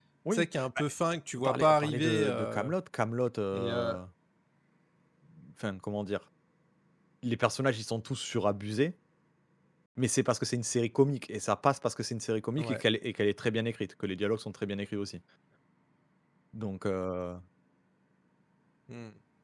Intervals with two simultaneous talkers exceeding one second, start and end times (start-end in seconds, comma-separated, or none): 1.4-2.7